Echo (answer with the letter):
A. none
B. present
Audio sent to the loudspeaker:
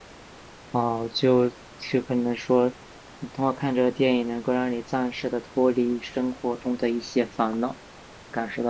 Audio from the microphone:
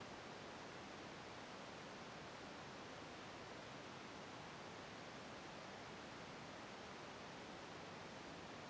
A